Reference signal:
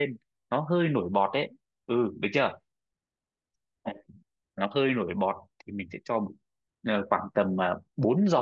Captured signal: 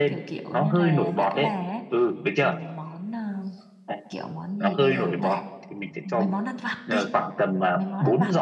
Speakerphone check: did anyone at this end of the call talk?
Yes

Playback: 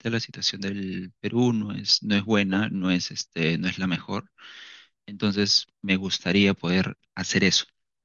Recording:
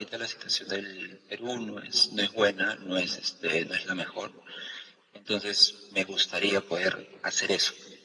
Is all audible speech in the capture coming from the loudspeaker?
Yes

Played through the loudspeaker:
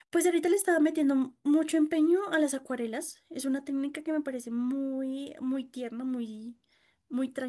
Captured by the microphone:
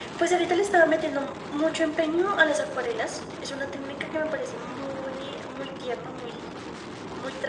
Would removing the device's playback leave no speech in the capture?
Yes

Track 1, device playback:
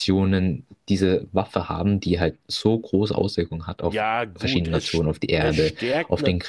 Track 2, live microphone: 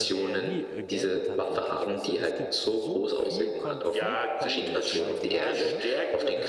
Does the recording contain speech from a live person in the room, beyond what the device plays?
Yes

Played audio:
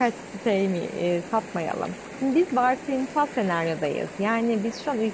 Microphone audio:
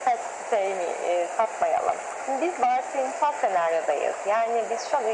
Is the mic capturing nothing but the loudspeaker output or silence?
Yes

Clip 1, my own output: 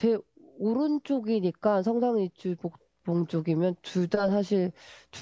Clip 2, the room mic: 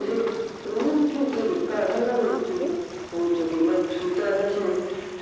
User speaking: Yes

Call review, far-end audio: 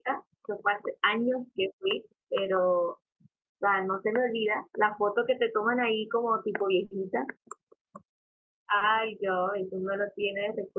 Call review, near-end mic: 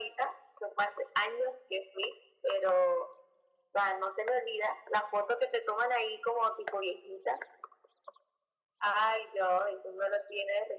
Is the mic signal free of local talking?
Yes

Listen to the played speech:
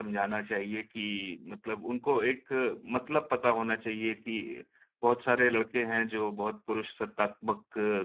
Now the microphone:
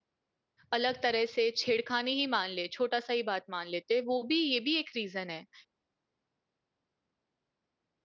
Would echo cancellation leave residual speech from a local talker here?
Yes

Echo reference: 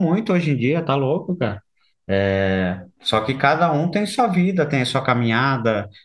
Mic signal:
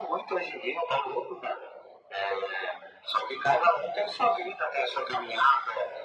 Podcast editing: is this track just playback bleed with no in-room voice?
Yes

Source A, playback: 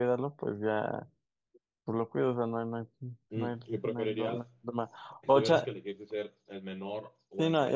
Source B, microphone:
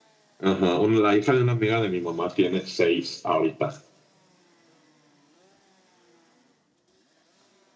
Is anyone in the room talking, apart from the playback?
Yes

